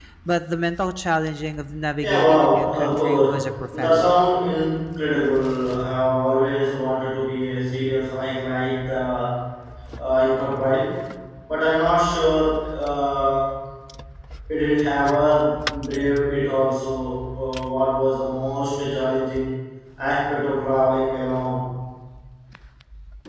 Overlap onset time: 2.0 s

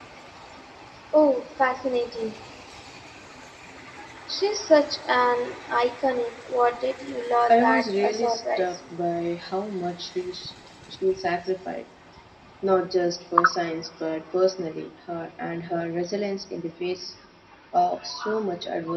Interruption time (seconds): 7.5 s

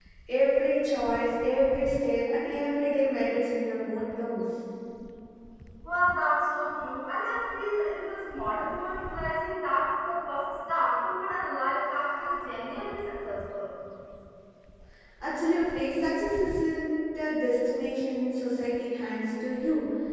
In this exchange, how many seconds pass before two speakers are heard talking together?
none

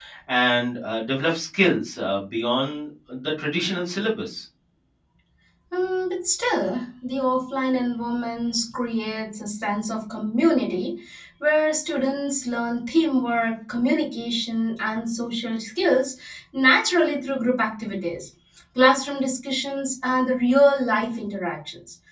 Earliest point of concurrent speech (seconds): none

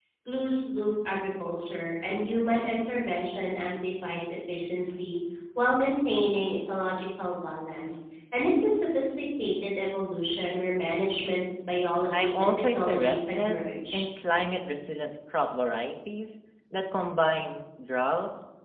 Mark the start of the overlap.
12.1 s

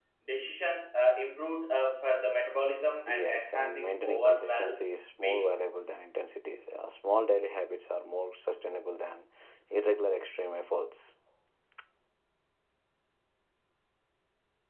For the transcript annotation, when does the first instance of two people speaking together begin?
3.1 s

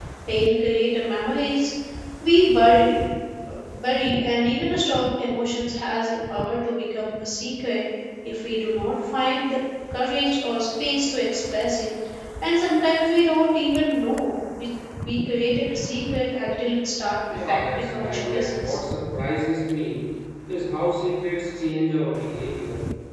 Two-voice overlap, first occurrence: 17.3 s

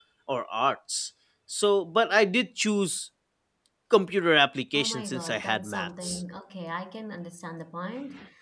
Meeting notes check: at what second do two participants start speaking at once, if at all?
4.7 s

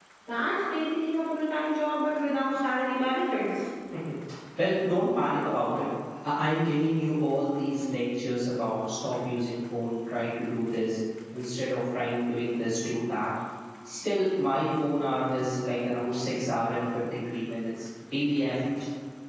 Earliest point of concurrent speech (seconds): none

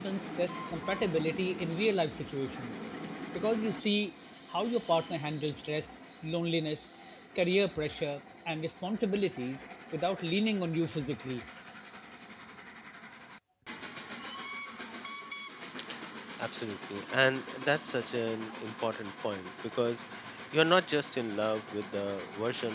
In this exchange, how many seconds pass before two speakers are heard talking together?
none

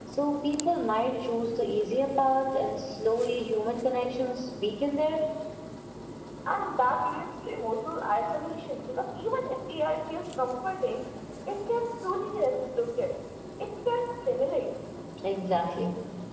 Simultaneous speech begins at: none

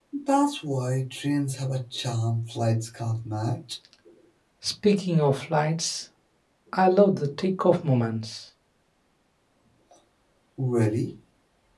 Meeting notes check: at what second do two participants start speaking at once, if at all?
none

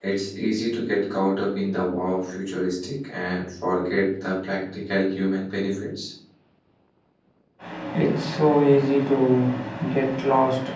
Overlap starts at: none

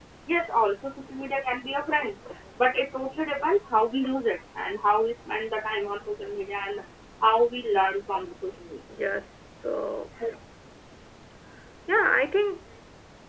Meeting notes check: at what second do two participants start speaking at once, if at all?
none

